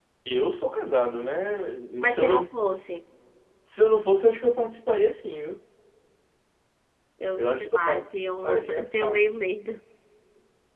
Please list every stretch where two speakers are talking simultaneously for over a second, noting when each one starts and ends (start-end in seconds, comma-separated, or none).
7.4-9.2